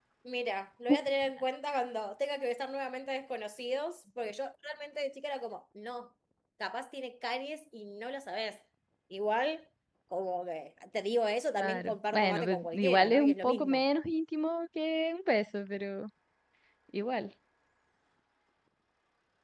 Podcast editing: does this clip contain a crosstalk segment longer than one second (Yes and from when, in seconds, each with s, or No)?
Yes, from 11.6 s